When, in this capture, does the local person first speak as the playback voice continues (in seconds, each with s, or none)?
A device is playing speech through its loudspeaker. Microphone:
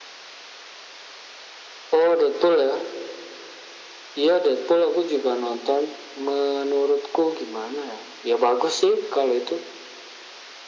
none